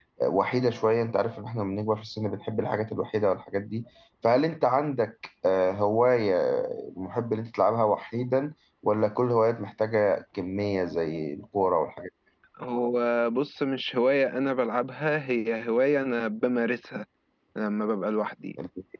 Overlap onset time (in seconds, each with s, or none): none